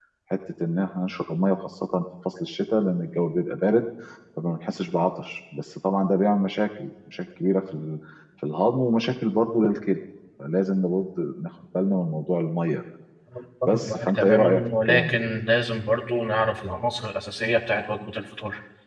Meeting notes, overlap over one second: present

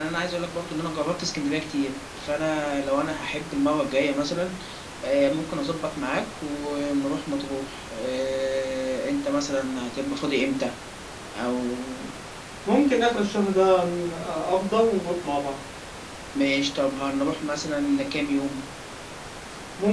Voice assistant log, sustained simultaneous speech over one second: none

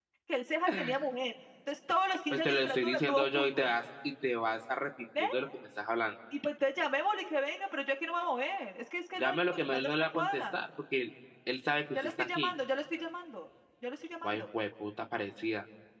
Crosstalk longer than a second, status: present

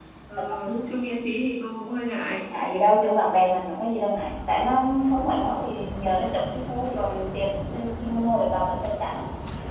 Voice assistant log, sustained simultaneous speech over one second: none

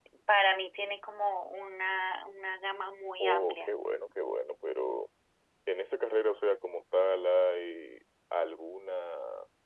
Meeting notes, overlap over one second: none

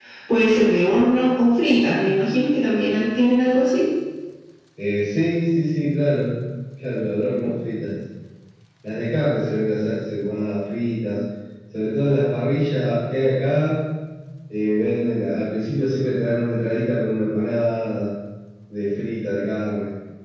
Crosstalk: none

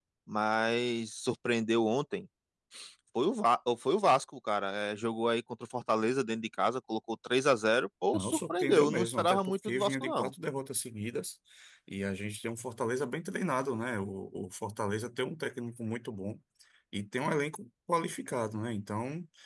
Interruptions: present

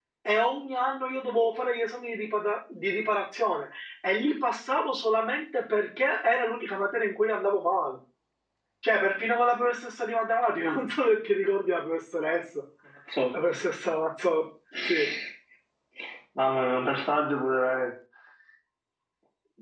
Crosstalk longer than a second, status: none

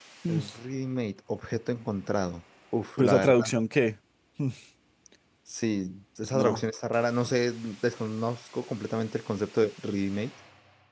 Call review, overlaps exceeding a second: none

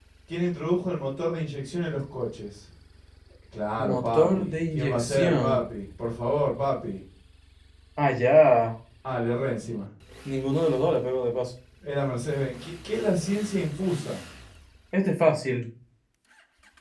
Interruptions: present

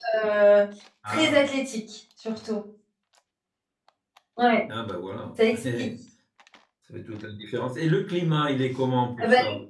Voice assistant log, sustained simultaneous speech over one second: none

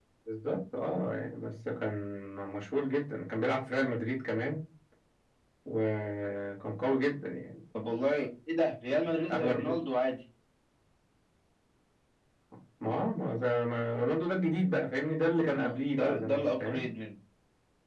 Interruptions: present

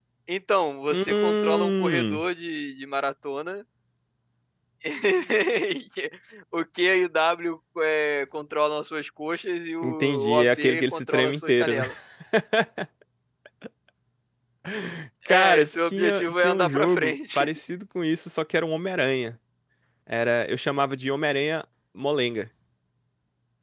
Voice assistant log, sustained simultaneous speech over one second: present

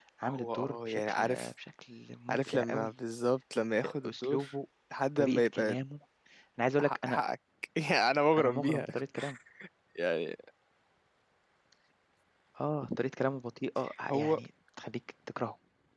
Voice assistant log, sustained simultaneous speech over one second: present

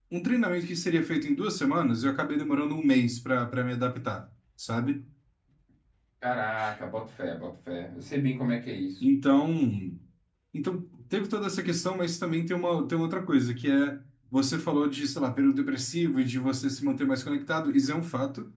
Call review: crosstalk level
none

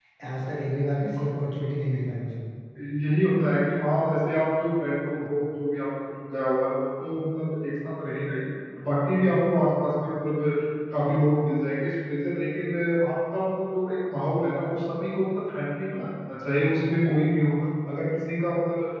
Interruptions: none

